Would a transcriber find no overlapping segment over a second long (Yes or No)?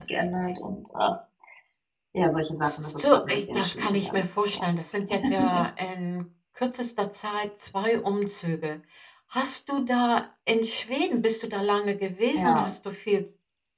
No